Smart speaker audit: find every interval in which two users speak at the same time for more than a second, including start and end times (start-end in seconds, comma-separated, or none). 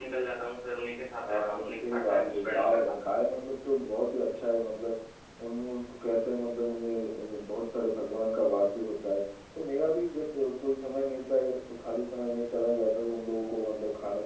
1.3-3.0